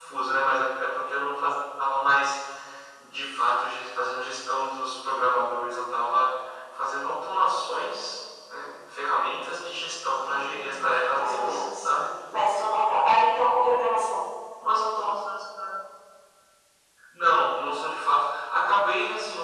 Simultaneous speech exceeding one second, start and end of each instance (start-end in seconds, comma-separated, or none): 10.1-11.9